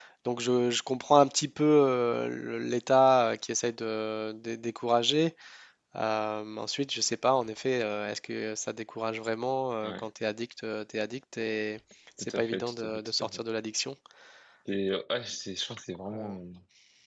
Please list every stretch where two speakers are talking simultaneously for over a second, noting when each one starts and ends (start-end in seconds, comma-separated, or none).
12.2-13.4